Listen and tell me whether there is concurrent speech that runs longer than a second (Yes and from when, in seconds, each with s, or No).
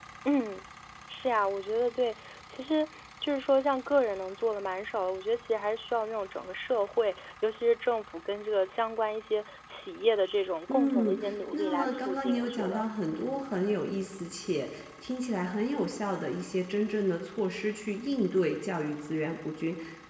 Yes, from 10.7 s